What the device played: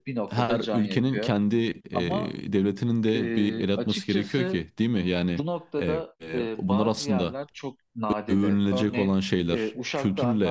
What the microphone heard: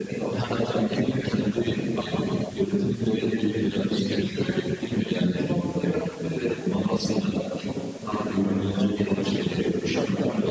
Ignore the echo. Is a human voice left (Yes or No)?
No